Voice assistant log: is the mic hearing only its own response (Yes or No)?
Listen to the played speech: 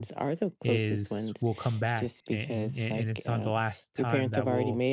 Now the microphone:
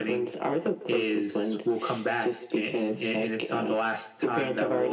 Yes